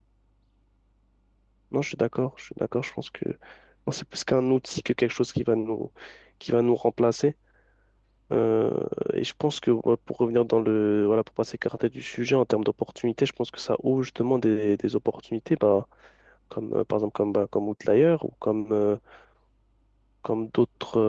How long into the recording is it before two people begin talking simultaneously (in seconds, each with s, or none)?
none